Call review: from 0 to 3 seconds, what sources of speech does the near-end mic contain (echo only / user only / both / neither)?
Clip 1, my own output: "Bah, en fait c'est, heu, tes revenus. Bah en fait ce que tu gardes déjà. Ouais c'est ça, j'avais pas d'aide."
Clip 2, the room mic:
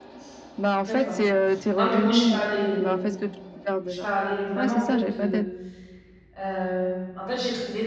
both